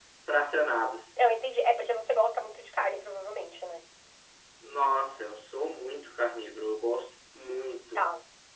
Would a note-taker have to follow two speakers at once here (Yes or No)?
No